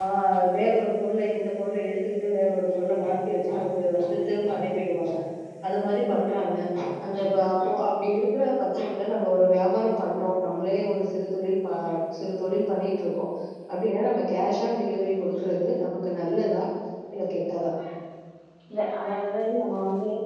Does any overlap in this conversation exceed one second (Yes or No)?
No